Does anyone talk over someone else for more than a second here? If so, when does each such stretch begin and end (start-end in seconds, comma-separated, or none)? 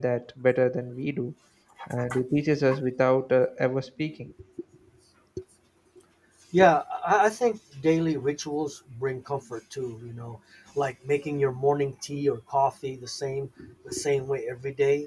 none